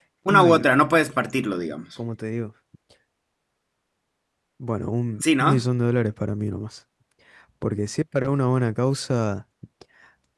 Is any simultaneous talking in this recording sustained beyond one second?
No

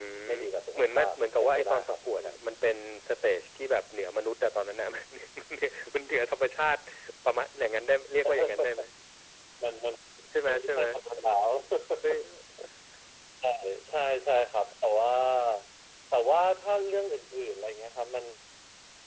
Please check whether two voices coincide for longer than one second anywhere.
Yes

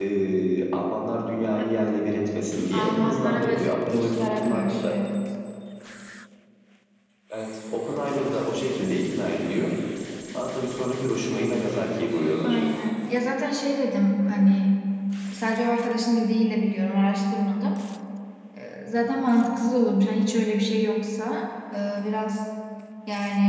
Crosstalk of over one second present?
Yes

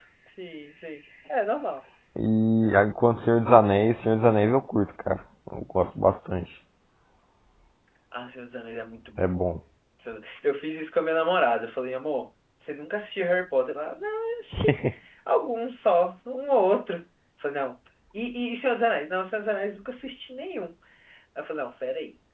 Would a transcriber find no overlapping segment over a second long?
Yes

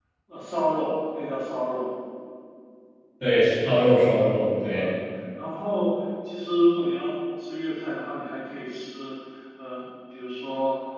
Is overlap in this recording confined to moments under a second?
Yes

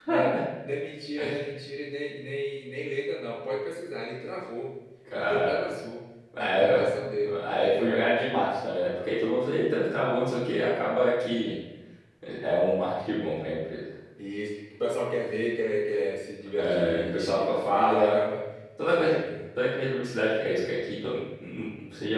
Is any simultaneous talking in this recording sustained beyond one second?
Yes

